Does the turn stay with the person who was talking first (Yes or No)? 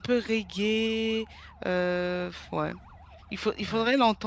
Yes